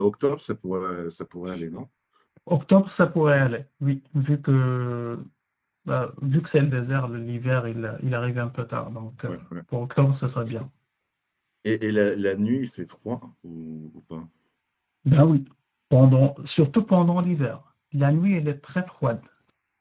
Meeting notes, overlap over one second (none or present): none